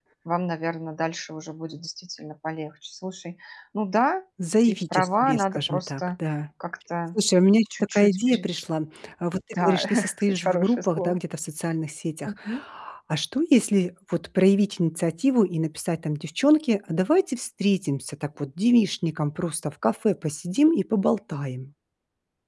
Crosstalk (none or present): present